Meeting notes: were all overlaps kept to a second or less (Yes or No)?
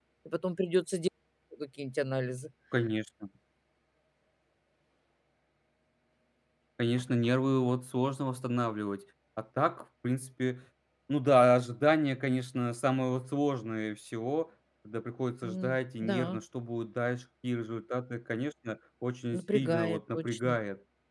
No